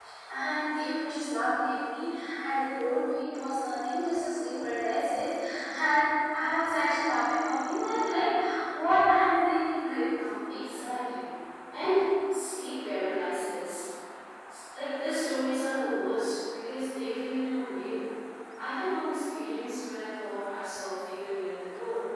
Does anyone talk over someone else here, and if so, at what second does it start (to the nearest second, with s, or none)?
none